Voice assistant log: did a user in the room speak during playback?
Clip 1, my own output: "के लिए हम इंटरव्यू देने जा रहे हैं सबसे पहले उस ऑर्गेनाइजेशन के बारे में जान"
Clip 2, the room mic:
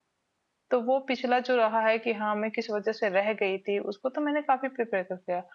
Yes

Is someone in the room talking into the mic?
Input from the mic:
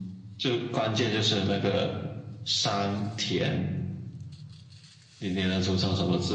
No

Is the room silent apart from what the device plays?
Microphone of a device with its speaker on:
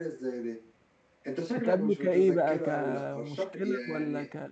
No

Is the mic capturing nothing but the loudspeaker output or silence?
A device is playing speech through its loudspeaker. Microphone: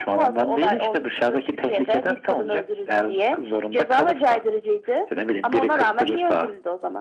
Yes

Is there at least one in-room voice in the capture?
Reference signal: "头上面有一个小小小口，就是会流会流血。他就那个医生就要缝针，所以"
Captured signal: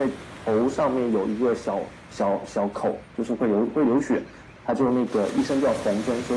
No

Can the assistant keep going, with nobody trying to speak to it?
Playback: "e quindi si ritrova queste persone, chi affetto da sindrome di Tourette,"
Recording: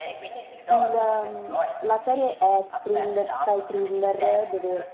No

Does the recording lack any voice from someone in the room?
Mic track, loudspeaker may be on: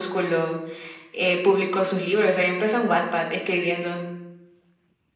Yes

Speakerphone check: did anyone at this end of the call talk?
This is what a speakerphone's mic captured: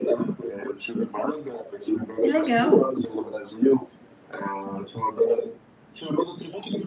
Yes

